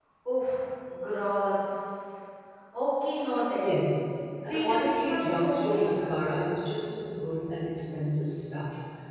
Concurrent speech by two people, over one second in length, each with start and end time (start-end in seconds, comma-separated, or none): 4.5-5.8